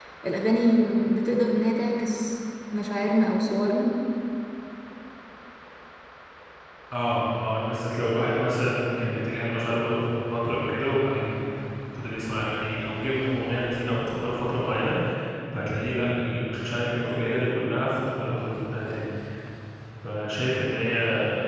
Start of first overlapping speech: none

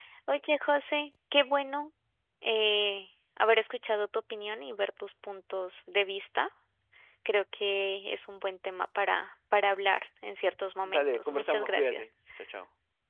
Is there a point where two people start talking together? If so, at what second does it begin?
10.8 s

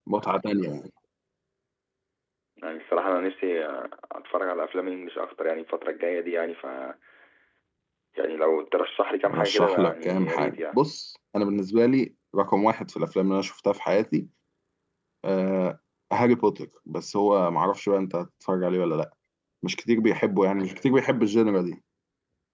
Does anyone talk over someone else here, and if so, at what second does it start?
9.2 s

